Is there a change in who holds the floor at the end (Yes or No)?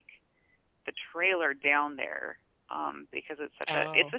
Yes